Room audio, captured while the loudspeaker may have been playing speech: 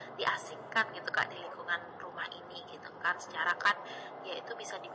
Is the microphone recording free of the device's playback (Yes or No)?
No